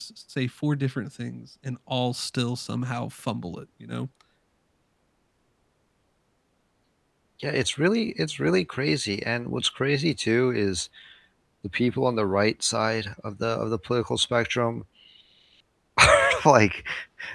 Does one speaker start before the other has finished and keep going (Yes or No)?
No